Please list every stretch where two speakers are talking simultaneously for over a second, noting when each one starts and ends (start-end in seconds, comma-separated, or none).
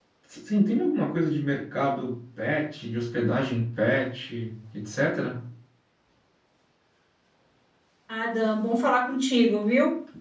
none